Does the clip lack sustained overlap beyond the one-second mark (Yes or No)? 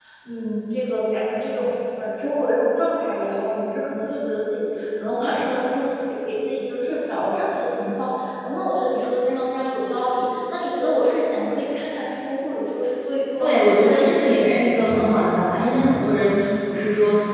No